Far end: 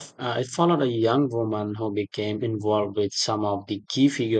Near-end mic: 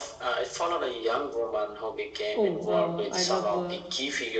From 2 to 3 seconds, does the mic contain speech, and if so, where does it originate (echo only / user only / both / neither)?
both